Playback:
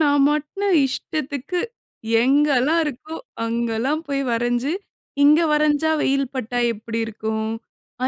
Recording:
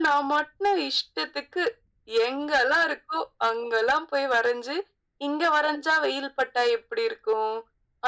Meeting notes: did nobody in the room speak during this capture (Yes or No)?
Yes